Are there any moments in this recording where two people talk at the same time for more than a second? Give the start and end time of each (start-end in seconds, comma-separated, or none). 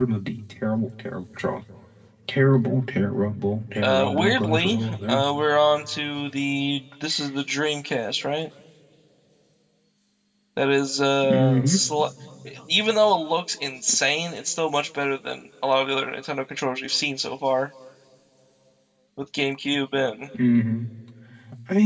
3.8-5.2